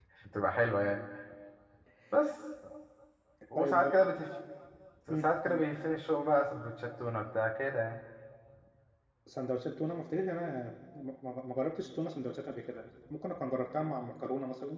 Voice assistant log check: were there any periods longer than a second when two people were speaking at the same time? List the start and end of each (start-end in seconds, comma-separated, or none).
none